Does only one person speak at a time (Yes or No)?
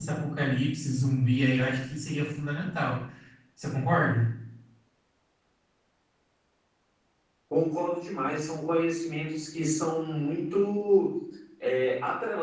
Yes